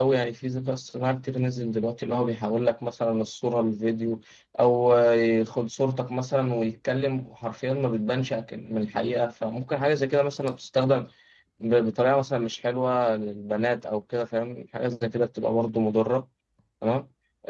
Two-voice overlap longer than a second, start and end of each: none

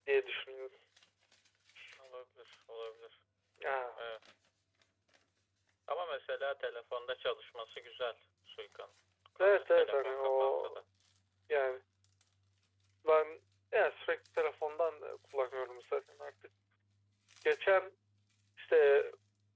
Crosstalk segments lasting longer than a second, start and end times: 9.4-10.8

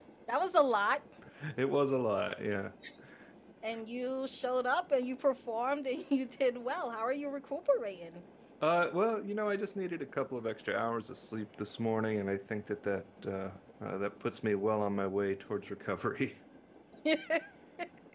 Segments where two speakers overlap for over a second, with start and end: none

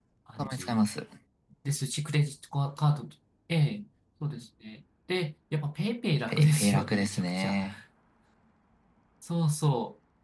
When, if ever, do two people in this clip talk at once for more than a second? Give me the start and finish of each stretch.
6.3-7.6

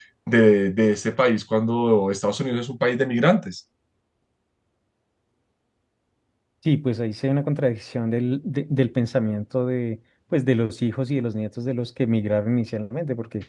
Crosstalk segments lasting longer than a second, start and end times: none

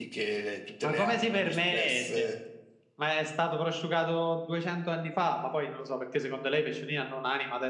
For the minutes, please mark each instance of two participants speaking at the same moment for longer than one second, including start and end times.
0.8-2.3

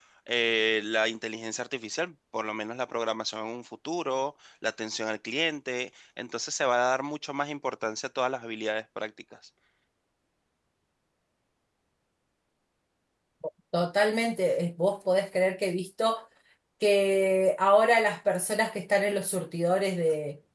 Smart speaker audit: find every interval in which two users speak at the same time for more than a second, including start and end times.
none

